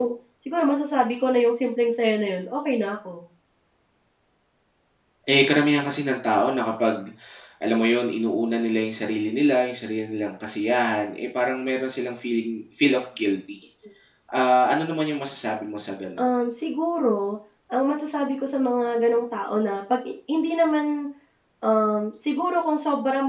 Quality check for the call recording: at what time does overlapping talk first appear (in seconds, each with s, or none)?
none